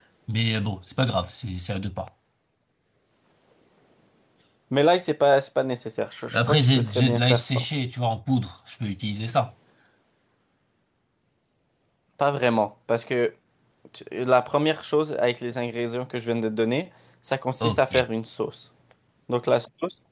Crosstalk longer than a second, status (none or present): present